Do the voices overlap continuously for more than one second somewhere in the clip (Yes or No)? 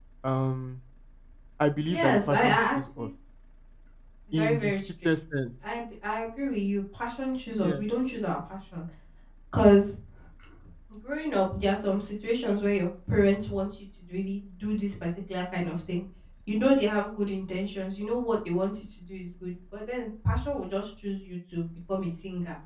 Yes